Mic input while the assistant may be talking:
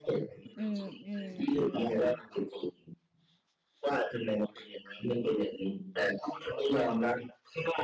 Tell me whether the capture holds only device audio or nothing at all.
No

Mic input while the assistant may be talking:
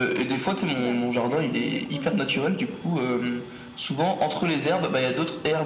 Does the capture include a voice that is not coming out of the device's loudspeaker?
Yes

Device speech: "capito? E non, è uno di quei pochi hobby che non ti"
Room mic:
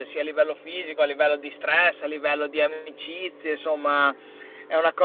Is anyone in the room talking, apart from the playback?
Yes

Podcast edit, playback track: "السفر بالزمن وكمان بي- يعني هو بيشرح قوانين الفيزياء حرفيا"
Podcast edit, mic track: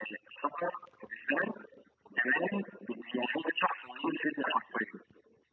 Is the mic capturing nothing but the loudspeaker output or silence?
Yes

